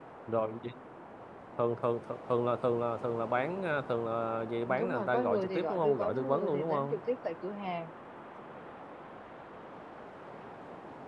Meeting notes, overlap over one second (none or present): present